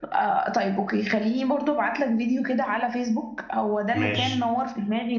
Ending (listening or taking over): listening